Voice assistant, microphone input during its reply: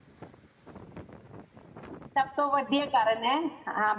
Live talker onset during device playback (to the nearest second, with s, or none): 2 s